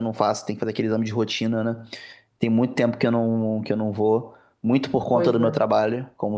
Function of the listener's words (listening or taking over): listening